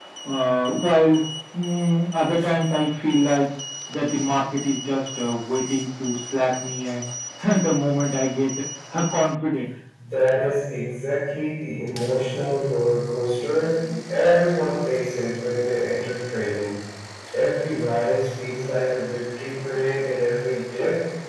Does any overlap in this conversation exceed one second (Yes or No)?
No